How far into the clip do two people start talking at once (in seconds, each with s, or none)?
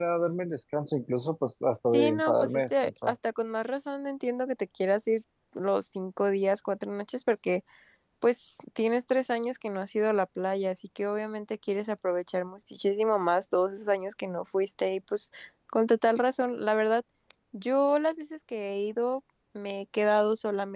1.9 s